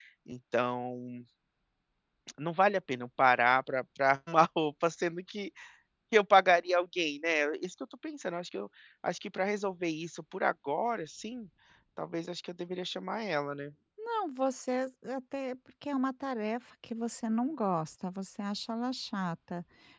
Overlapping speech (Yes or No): No